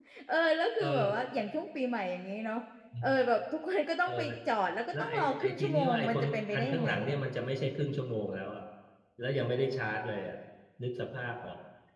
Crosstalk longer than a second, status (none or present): present